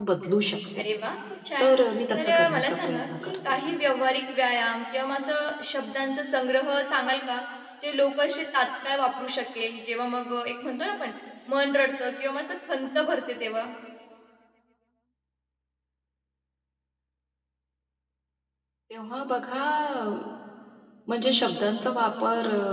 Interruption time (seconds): 2 s

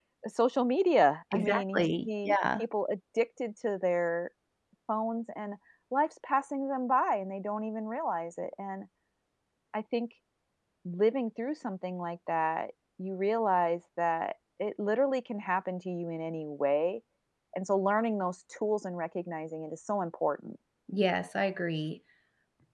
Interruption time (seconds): 1 s

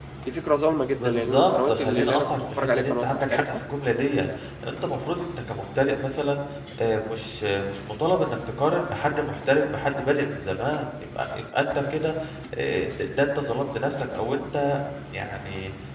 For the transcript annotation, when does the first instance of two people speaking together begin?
1 s

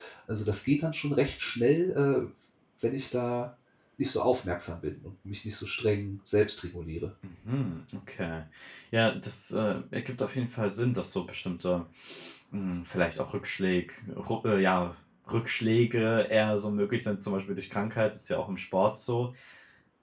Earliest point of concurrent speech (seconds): none

